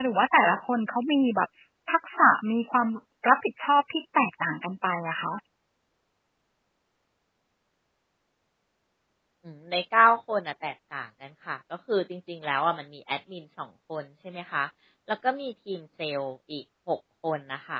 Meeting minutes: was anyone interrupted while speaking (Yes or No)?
No